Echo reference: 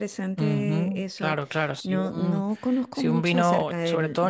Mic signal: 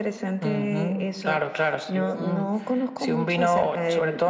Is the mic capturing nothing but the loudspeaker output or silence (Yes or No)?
Yes